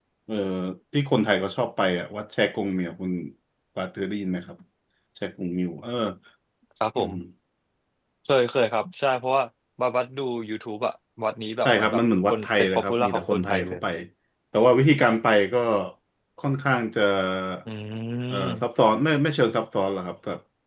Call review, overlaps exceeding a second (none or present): present